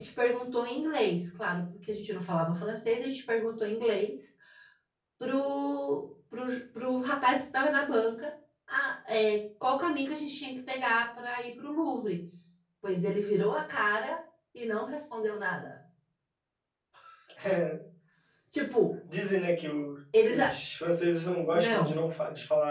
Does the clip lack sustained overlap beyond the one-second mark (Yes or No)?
Yes